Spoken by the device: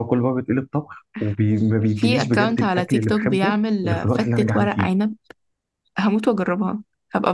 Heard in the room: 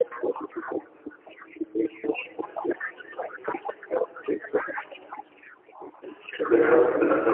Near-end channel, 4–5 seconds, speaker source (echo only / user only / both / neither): echo only